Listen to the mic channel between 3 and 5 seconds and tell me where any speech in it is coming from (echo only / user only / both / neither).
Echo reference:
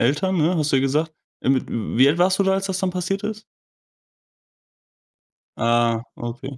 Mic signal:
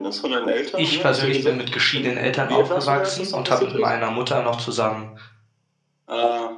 both